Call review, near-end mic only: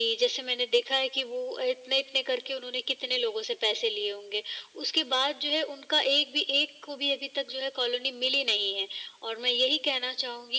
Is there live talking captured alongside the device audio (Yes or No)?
No